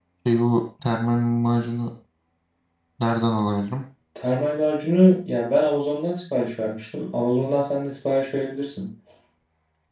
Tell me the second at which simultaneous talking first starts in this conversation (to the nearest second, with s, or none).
none